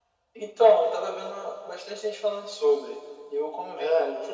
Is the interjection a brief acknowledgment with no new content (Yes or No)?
Yes